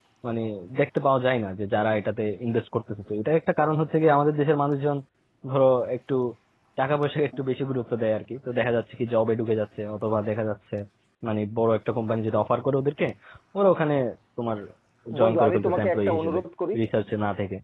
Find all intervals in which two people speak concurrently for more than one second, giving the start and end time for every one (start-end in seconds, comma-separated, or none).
15.2-16.4